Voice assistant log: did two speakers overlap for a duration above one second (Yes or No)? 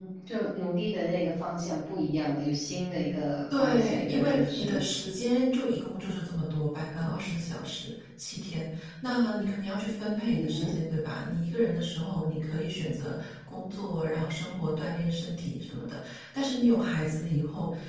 Yes